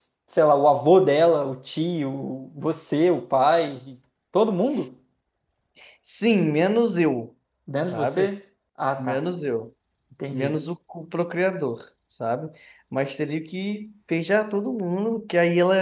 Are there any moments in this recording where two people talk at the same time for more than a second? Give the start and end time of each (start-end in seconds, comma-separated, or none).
none